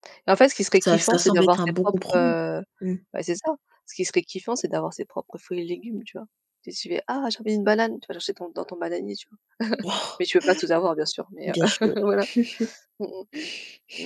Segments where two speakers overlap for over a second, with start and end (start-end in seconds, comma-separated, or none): 0.8-2.3